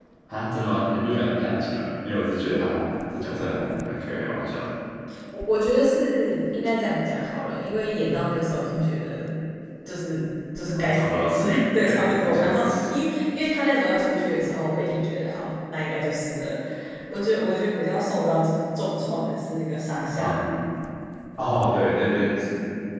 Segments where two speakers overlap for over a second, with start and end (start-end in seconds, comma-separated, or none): 10.7-12.7